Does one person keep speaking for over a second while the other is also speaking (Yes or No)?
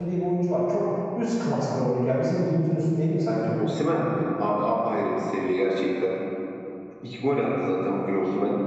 No